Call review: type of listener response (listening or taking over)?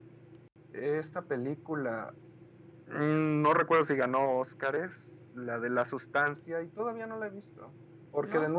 listening